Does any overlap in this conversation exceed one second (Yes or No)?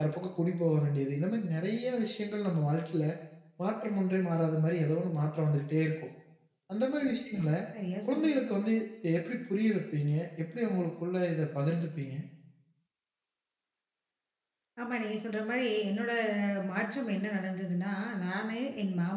No